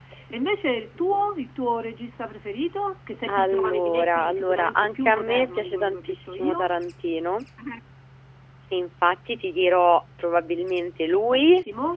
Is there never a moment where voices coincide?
No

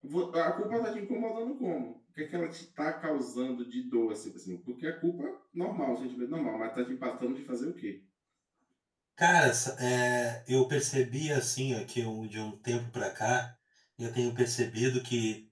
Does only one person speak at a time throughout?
Yes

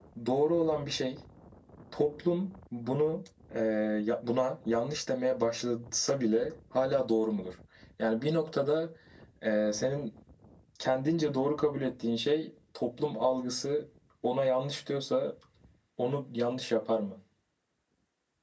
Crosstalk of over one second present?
No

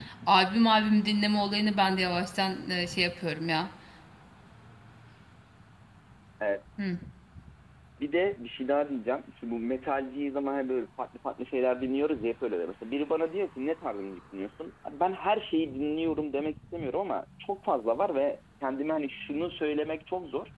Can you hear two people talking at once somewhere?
No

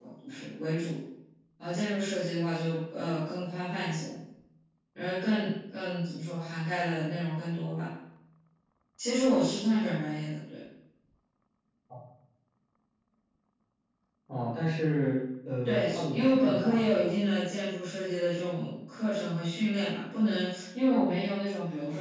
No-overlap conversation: No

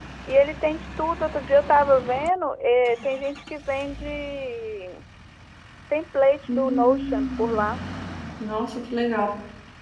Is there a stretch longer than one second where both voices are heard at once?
Yes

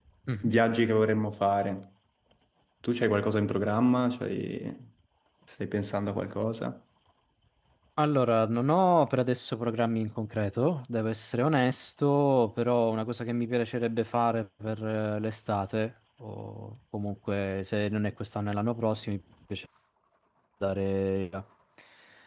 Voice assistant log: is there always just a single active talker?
Yes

